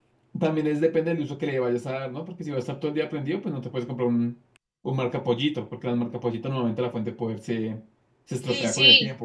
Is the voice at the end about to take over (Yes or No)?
Yes